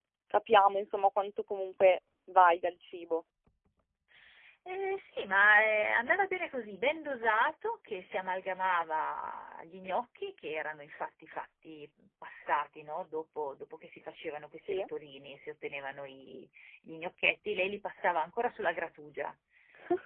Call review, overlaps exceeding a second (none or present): none